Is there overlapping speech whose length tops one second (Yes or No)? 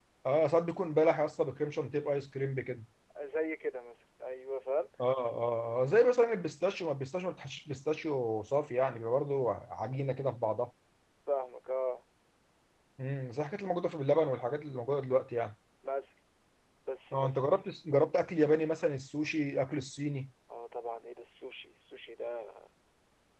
No